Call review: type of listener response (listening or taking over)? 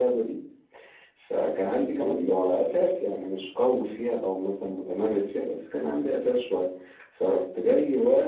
listening